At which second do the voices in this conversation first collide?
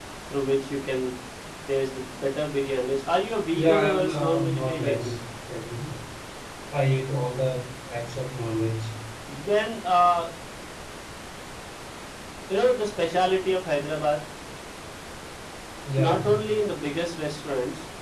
3.6 s

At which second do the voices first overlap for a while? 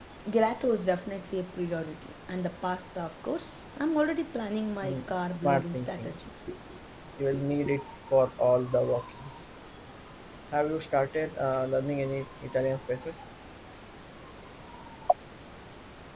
4.8 s

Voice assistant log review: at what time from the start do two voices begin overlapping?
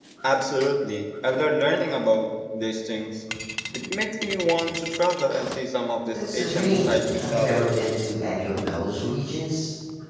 6.1 s

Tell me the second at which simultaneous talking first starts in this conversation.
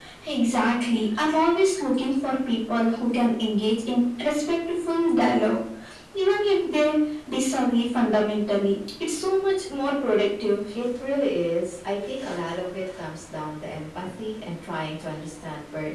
none

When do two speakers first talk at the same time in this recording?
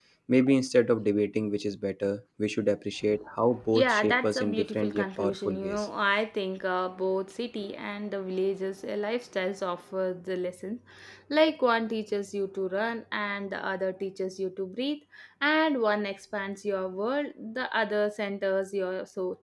3.6 s

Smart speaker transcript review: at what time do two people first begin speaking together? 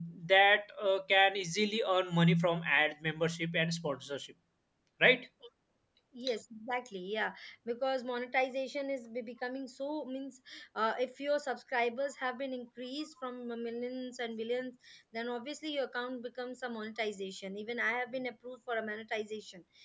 none

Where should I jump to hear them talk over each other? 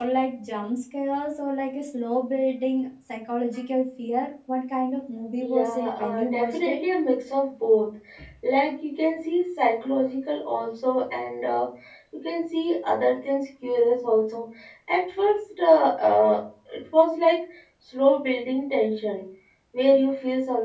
5.4 s

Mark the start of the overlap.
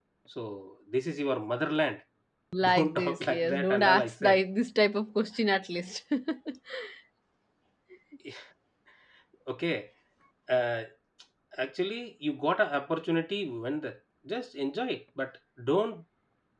2.6 s

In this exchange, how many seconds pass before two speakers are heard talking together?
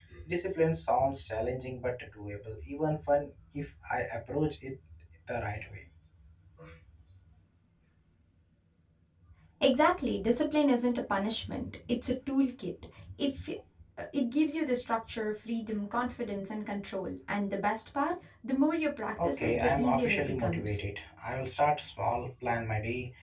19.2 s

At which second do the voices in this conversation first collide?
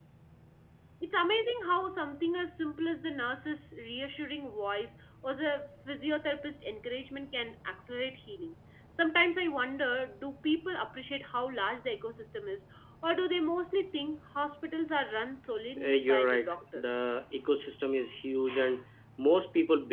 15.8 s

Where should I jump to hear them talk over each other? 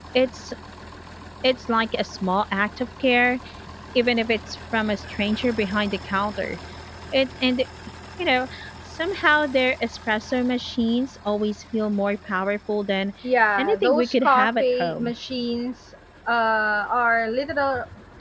13.6 s

